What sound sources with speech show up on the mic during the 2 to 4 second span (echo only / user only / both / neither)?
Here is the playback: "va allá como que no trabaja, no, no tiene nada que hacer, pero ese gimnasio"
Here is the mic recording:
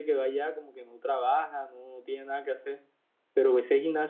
echo only